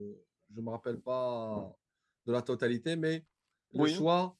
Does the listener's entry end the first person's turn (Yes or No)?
No